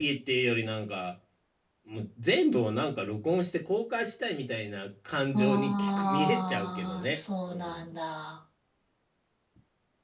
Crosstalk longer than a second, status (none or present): present